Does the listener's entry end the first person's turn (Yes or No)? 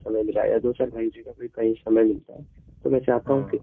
No